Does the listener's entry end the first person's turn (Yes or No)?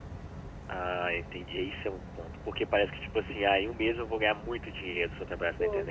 Yes